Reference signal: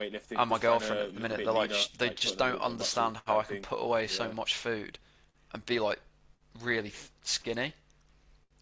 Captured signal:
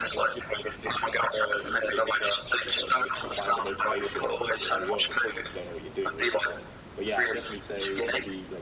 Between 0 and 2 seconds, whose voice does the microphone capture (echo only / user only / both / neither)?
echo only